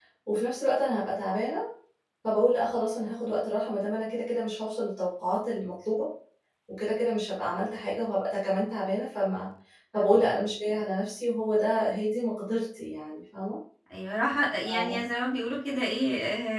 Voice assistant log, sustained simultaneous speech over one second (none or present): none